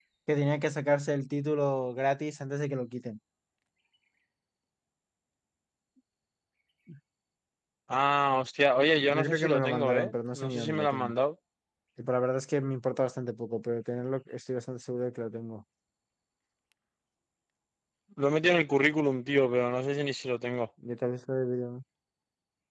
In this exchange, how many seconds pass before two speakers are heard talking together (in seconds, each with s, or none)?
9.1 s